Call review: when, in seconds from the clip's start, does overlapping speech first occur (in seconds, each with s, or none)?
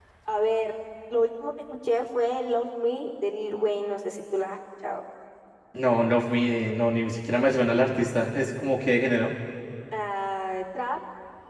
none